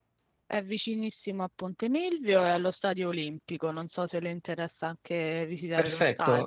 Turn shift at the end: Yes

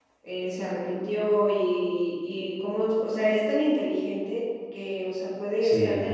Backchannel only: Yes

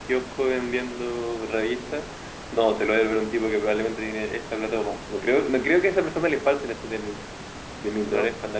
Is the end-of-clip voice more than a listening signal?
No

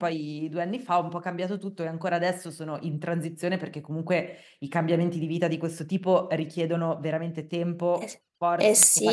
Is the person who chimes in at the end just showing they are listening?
No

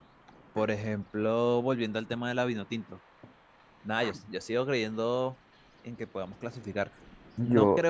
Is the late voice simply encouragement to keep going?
Yes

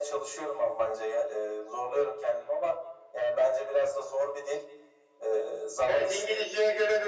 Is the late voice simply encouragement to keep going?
No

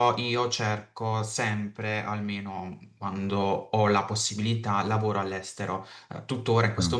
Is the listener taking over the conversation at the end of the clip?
No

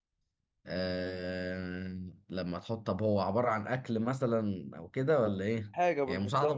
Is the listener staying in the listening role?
No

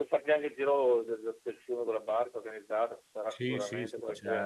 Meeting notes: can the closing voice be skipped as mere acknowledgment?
No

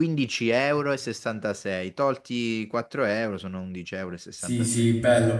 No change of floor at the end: No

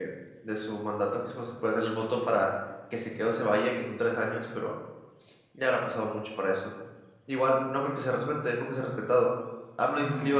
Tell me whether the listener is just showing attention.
Yes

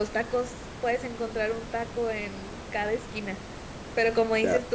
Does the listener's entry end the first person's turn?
No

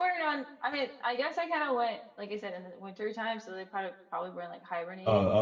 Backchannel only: No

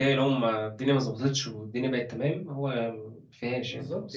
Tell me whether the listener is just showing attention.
No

